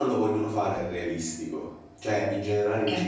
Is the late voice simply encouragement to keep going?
Yes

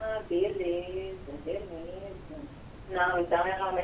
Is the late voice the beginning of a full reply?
No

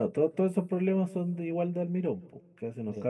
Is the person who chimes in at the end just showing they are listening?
No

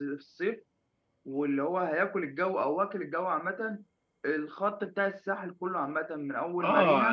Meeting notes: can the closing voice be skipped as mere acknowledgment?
No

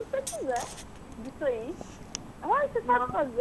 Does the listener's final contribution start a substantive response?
No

